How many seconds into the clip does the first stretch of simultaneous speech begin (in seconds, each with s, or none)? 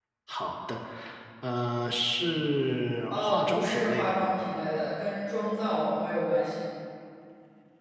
3.1 s